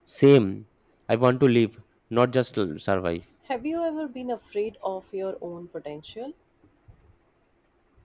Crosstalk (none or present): none